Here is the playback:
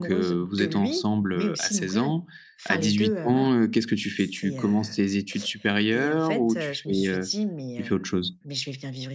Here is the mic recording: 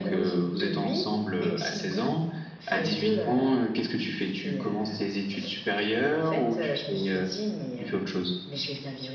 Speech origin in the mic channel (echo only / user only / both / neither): echo only